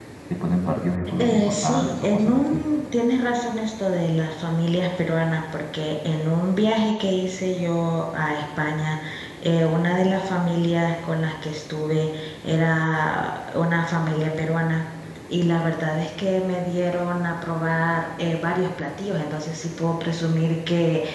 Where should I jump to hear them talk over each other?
1 s

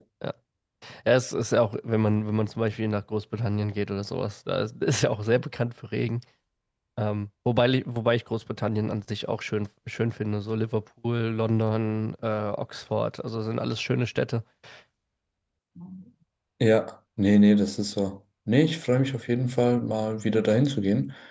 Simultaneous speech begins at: none

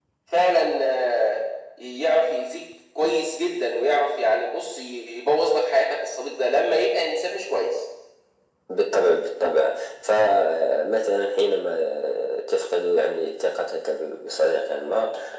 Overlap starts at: none

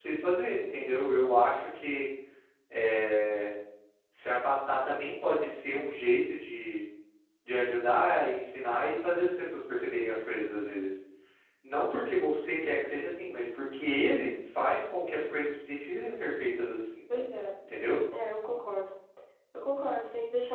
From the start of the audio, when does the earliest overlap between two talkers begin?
none

